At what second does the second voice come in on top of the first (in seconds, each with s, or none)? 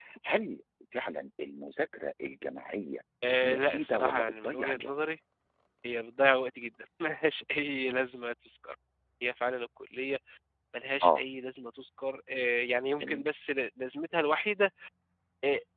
3.4 s